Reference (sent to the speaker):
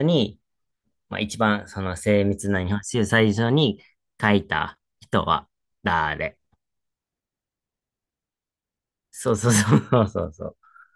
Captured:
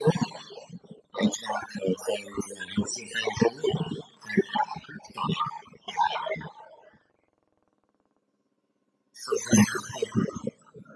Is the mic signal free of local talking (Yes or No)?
Yes